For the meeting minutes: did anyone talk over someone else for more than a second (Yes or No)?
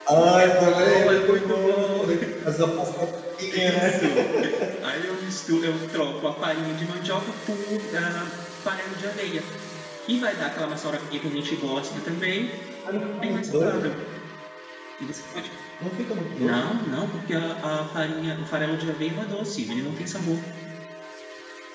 Yes